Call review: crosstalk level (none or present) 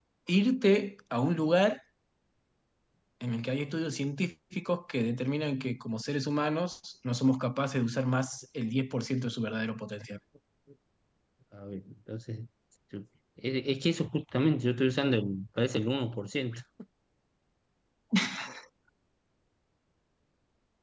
none